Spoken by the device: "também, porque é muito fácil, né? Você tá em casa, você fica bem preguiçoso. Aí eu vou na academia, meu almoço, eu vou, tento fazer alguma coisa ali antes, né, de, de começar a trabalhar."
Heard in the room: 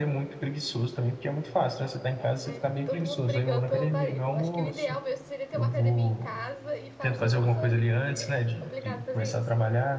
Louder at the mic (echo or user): echo